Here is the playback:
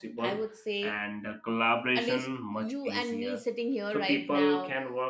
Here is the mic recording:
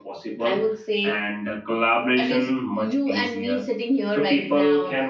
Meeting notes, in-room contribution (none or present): none